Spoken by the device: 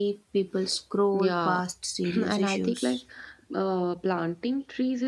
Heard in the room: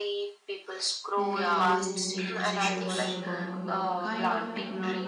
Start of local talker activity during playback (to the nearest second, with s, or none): 1 s